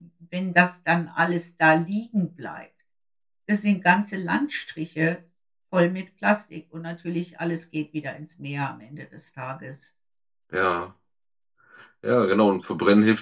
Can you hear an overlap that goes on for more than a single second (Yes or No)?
No